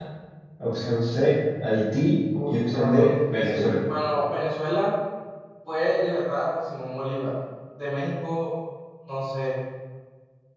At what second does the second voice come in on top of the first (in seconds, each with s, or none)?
2.3 s